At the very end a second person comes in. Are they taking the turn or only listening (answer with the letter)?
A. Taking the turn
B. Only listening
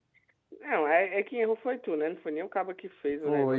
A